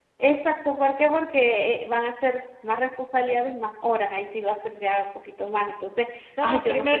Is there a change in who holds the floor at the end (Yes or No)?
Yes